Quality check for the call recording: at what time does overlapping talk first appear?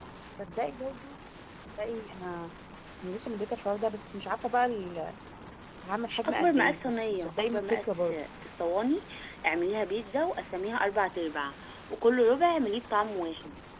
6.2 s

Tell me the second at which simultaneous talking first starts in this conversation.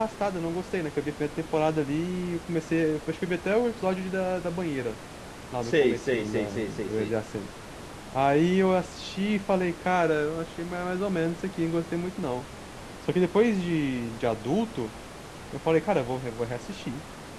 5.6 s

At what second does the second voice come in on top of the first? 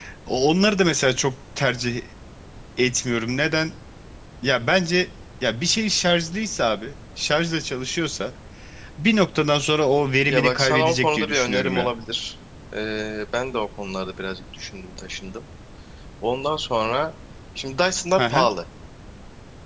10.3 s

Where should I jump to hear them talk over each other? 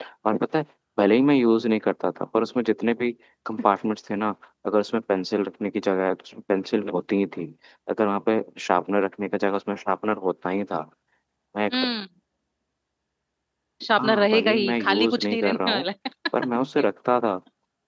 14.0 s

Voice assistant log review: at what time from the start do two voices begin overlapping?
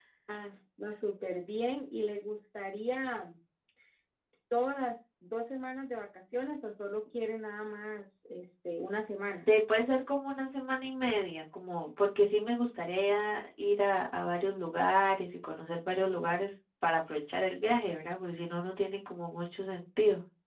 none

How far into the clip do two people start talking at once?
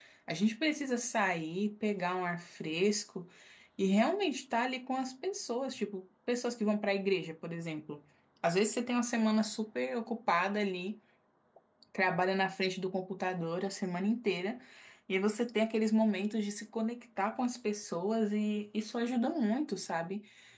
none

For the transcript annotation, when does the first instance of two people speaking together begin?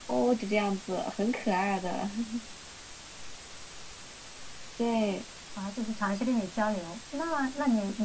none

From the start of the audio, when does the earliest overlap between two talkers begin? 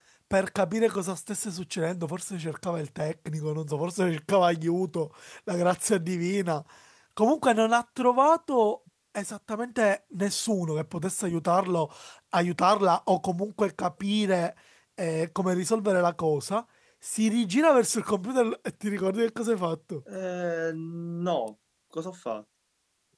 none

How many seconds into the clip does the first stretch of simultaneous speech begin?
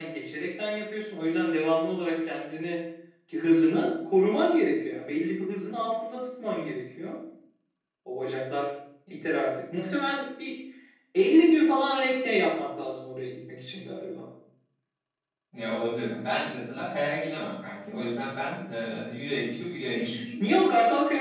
none

